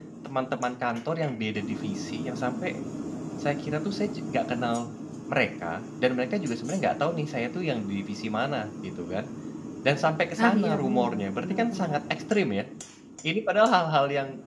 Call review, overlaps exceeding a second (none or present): present